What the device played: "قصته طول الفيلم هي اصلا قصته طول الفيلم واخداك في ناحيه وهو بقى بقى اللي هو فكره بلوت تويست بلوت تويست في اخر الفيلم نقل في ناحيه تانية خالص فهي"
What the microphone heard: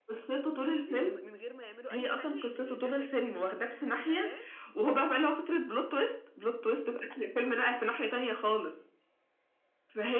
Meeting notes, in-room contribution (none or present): present